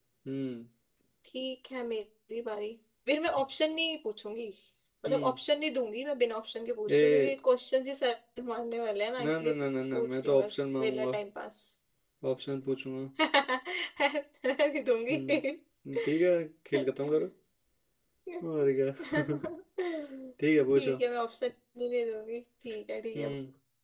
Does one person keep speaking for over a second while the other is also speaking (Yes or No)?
Yes